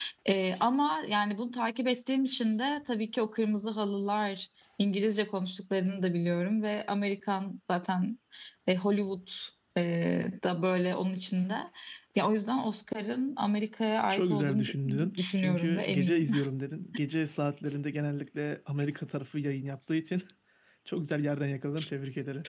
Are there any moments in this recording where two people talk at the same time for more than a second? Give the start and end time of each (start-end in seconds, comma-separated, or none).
14.1-16.3